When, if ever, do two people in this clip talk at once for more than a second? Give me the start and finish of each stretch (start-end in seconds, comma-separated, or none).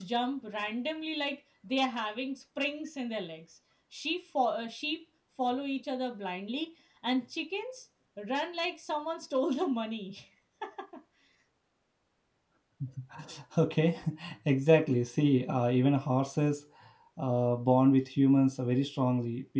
none